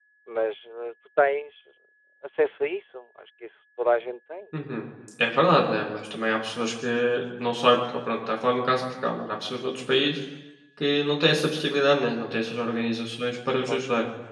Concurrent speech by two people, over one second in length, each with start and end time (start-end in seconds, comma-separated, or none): none